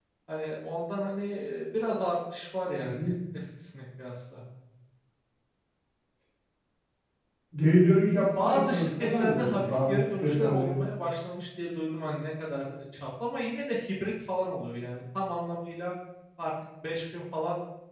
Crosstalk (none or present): present